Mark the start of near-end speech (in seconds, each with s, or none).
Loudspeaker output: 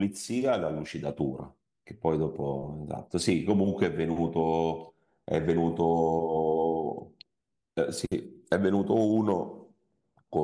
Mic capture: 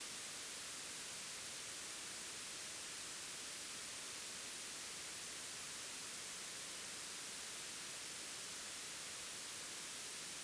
none